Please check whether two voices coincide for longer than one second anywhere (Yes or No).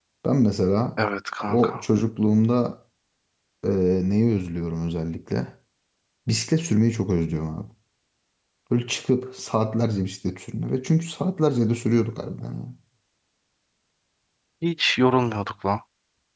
No